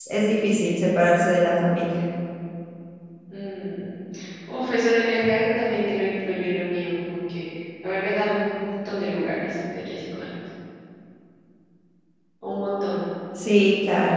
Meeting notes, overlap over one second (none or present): none